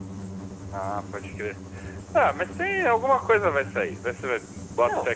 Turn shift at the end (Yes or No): No